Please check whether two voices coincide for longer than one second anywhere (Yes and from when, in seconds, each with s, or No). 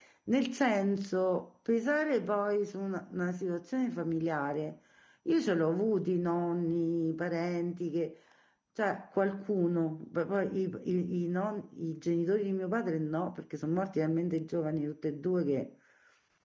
No